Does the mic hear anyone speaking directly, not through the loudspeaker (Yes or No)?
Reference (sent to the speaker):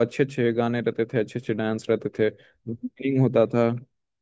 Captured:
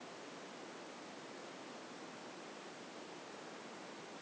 No